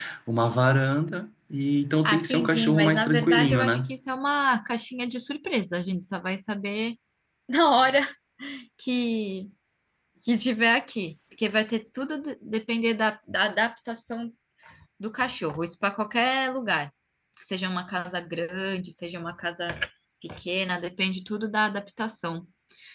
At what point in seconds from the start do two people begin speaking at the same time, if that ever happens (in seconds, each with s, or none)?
2.0 s